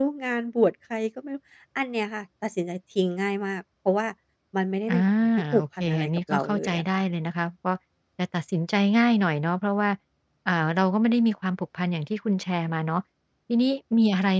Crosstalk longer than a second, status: present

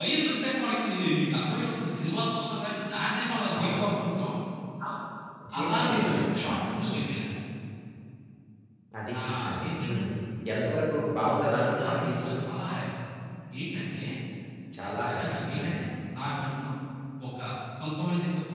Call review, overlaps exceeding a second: present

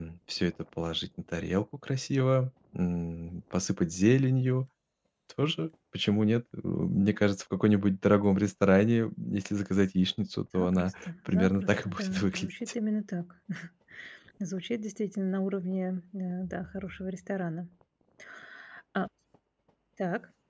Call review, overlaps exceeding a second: present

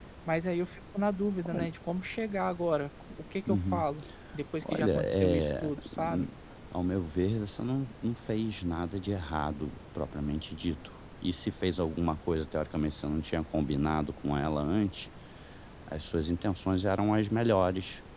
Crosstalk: present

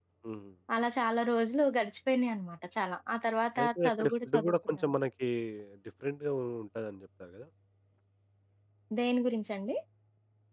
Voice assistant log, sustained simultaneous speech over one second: present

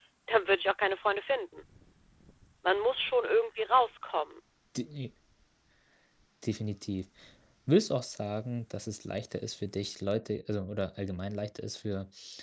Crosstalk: none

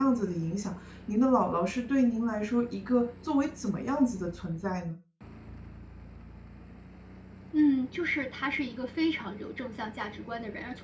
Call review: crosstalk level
none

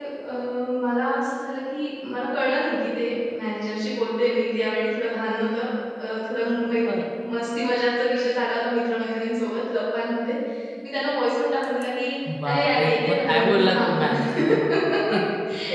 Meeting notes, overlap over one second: present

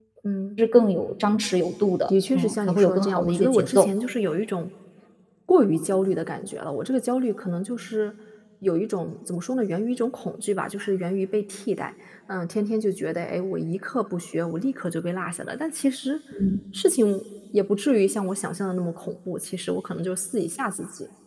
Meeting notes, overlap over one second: present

